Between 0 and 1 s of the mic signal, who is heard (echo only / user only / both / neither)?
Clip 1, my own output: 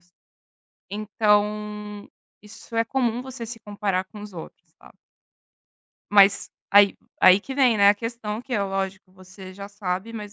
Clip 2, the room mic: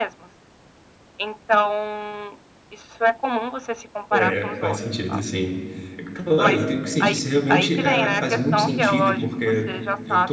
echo only